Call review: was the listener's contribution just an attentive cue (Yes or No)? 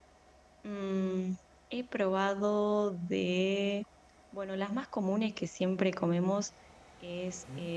Yes